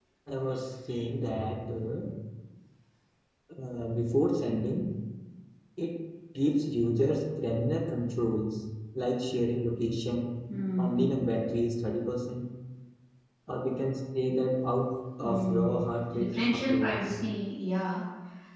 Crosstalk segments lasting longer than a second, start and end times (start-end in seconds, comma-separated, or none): 15.2-17.0